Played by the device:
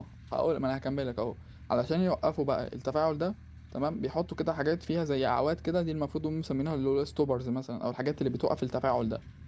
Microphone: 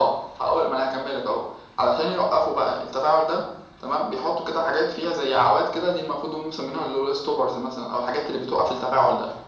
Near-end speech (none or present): none